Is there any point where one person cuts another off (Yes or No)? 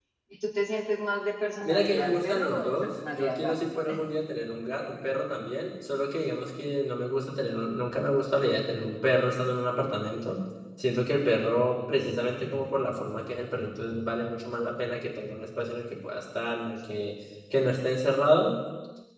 Yes